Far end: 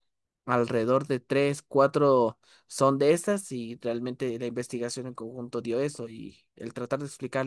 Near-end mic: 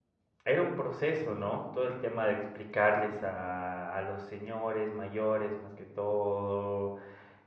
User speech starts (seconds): 0.4 s

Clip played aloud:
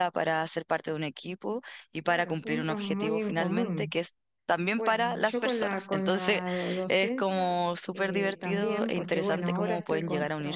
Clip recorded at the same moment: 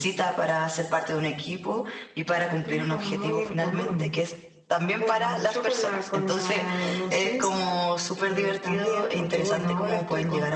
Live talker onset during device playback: none

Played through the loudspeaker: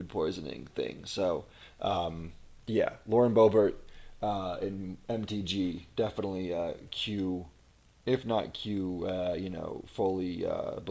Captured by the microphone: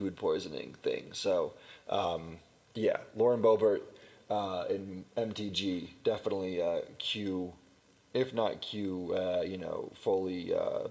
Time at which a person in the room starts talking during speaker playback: none

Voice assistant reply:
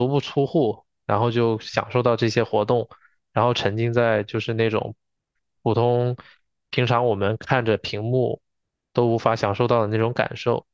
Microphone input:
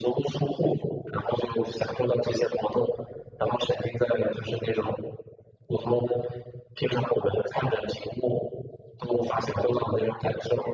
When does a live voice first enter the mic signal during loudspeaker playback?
none

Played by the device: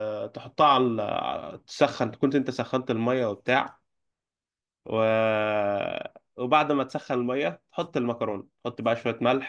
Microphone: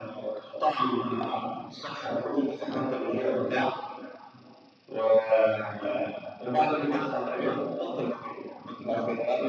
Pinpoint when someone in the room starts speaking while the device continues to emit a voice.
6.4 s

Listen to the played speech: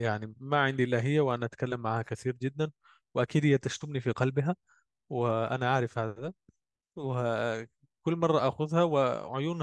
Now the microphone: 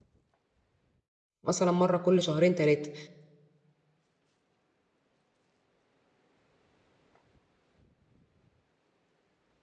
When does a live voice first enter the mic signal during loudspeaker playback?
1.4 s

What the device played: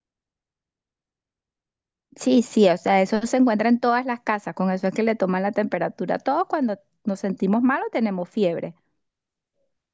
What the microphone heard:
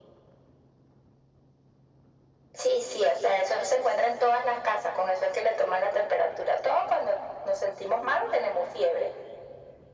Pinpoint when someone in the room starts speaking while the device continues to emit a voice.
none

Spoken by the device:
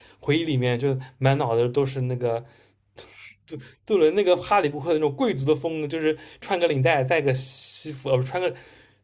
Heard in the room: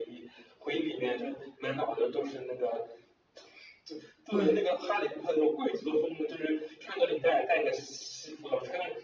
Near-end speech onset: 4.3 s

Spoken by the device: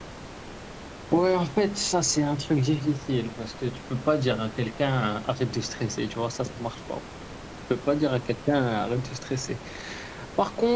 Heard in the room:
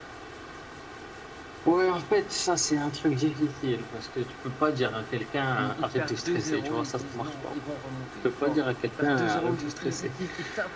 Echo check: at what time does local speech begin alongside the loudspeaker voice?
5.6 s

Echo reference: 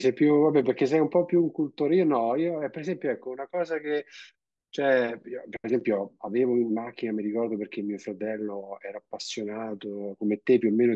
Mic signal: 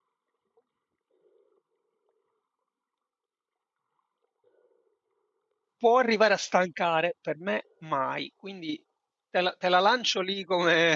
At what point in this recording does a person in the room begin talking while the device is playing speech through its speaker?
5.7 s

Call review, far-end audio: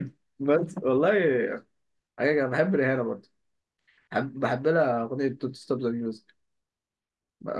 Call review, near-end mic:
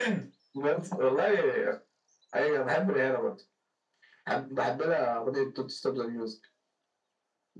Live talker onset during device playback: none

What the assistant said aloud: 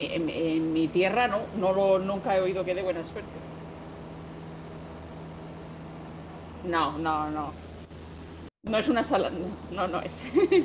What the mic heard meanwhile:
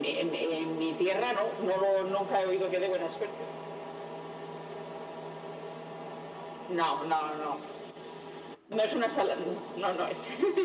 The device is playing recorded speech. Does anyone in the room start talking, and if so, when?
none

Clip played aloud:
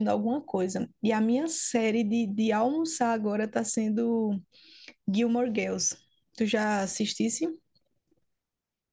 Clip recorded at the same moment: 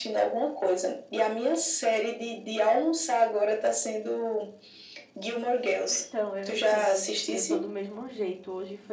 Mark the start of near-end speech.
5.8 s

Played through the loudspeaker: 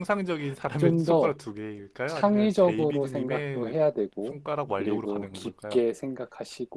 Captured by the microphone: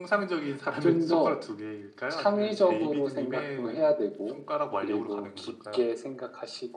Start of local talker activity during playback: none

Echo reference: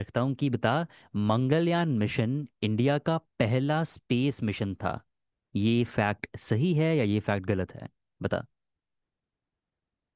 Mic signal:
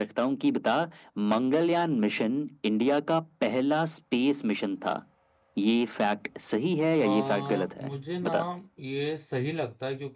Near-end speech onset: 7.0 s

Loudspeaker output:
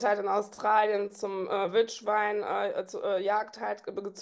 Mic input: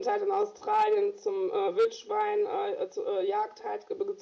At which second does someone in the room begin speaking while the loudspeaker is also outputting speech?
none

